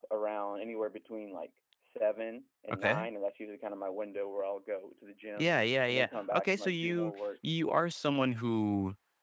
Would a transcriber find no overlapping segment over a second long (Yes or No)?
No